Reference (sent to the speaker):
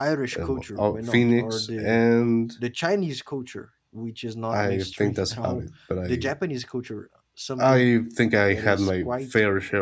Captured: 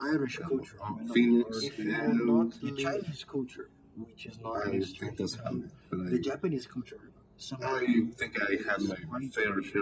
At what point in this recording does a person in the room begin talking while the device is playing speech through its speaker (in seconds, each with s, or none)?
1.6 s